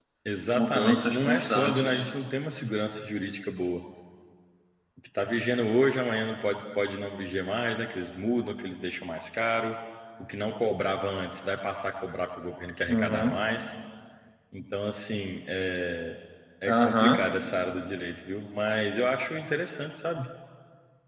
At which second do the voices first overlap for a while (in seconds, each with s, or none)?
0.6 s